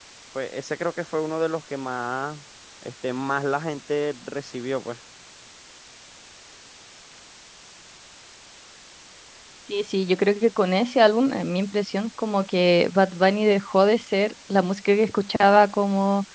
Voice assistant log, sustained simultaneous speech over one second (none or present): none